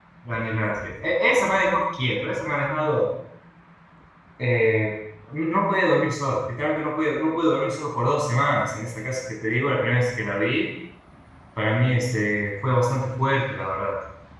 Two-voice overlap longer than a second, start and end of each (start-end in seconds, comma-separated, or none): none